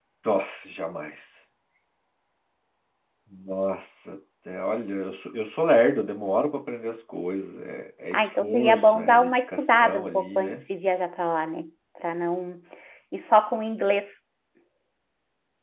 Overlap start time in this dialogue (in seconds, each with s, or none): 8.1 s